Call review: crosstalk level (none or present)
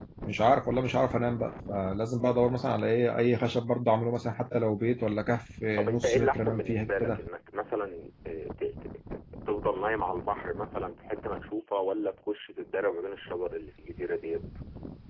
present